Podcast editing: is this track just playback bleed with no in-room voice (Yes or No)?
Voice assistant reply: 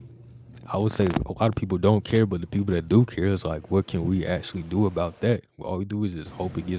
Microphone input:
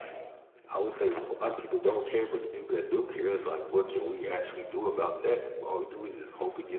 Yes